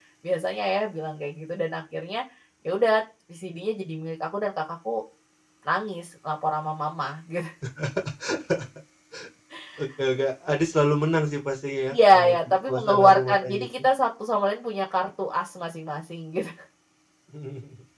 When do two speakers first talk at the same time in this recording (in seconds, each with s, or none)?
11.9 s